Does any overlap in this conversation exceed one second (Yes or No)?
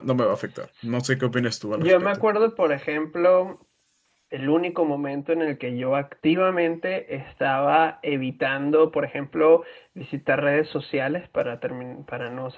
No